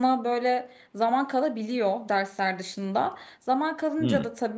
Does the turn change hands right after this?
No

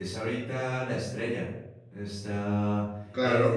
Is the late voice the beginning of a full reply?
Yes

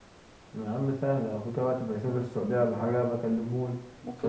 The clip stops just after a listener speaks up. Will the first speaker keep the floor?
No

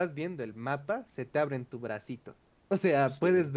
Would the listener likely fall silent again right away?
Yes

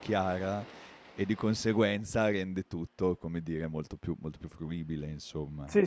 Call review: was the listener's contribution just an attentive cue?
No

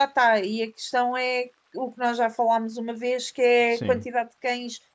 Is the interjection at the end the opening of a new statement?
No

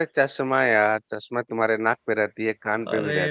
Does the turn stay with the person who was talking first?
Yes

